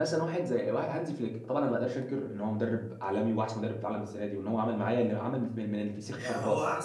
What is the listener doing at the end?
taking over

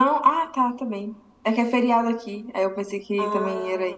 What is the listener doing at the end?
taking over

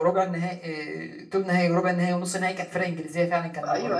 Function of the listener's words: taking over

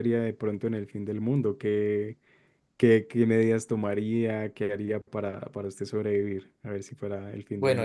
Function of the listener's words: taking over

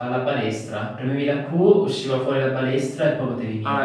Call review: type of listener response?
taking over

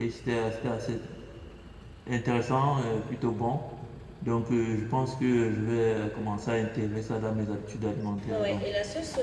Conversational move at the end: taking over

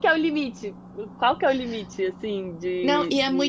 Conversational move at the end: taking over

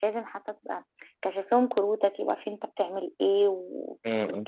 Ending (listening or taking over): listening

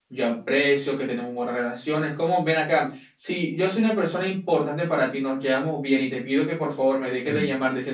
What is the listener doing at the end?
listening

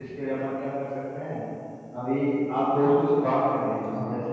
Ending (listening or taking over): listening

